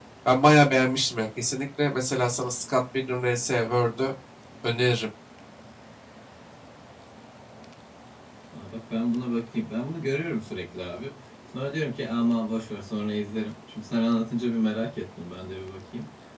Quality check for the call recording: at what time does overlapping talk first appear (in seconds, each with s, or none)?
none